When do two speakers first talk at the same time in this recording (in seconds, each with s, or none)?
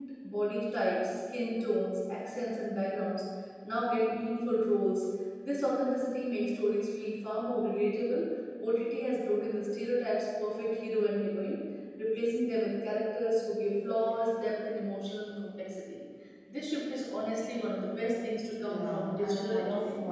18.6 s